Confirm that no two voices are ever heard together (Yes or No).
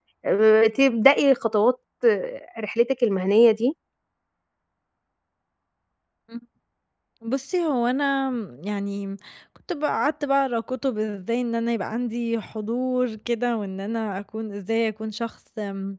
Yes